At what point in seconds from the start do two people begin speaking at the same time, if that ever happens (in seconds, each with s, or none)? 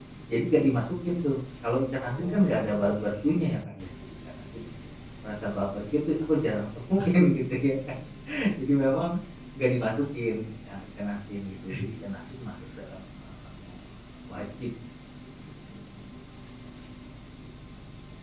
2.0 s